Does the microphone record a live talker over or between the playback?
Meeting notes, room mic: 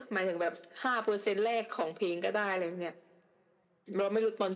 No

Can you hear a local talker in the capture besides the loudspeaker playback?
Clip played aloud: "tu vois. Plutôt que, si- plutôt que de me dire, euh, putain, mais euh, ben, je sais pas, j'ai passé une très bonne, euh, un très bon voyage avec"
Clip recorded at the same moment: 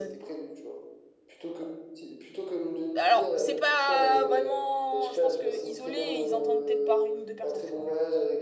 Yes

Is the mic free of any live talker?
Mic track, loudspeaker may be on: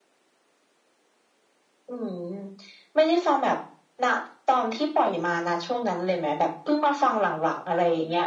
Yes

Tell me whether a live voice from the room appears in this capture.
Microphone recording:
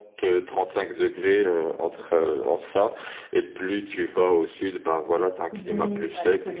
Yes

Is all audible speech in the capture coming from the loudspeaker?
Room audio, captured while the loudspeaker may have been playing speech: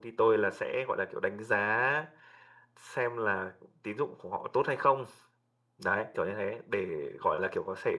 Yes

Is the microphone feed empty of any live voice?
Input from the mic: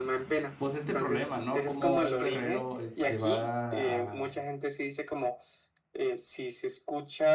No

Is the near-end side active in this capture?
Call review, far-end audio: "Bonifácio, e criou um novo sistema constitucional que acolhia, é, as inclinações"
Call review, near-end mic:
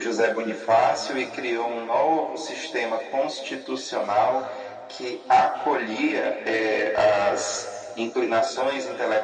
No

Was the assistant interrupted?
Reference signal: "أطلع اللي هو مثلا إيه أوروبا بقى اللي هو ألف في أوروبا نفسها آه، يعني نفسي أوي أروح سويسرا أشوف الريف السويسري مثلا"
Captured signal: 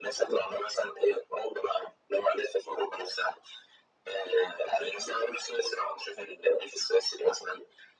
No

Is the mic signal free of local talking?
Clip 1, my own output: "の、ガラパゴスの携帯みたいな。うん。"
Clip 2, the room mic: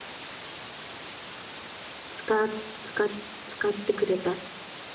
No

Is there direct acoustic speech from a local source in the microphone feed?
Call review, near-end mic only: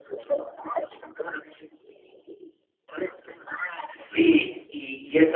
Yes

